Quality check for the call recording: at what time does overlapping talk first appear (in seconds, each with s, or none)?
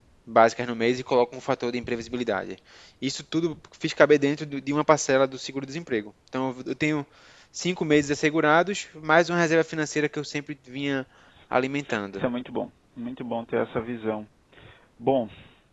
none